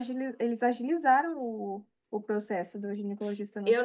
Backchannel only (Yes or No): No